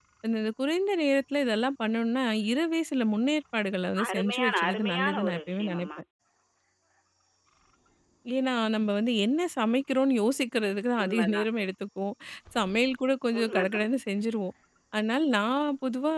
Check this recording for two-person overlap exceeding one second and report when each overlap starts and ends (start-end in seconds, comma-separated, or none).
4.1-5.9